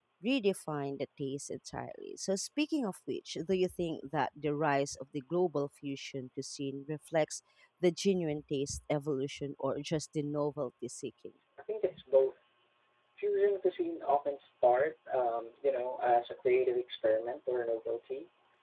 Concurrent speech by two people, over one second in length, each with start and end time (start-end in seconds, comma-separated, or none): none